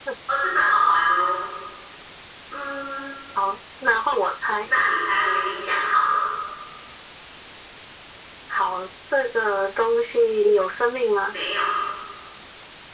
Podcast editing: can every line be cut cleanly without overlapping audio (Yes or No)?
Yes